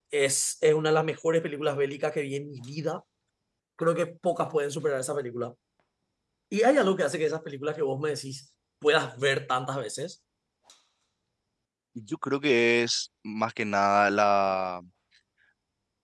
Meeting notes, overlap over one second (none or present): none